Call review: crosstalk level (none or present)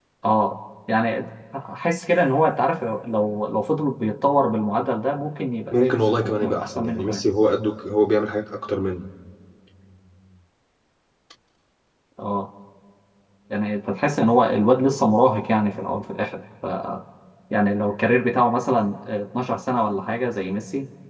present